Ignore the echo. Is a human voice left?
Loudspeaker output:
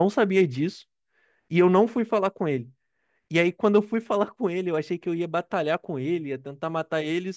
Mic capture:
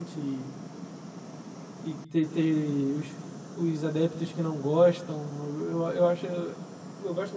Yes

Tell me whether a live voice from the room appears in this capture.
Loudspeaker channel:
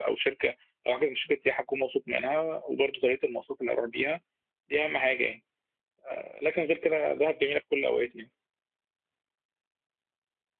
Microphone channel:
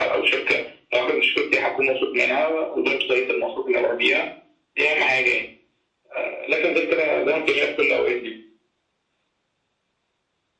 No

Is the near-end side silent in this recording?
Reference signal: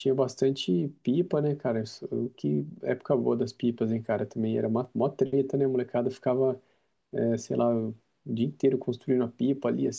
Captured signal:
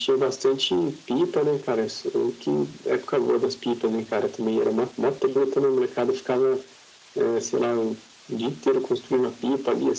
Yes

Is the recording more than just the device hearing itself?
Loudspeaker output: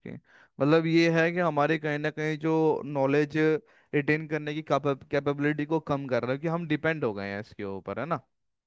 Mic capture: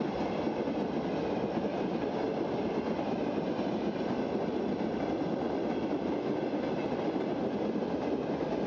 No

